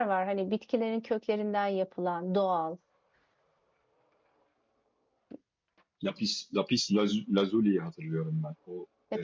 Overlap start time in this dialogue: none

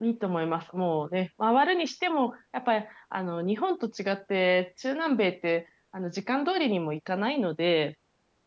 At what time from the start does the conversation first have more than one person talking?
none

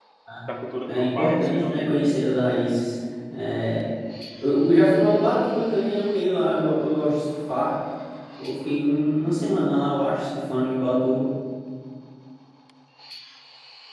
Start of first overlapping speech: 0.9 s

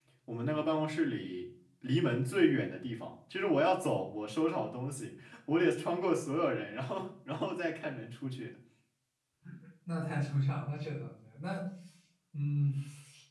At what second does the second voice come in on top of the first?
none

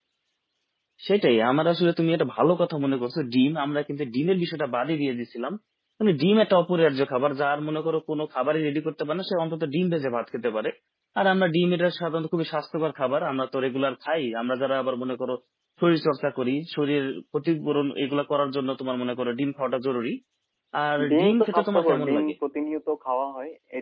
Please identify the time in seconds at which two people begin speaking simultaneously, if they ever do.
21.1 s

